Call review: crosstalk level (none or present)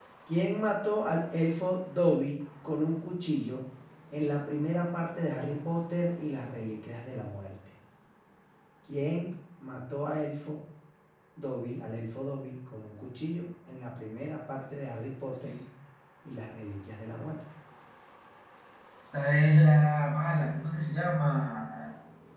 none